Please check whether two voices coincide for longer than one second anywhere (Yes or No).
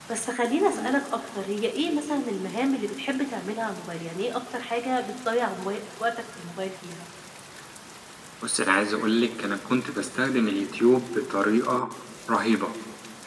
No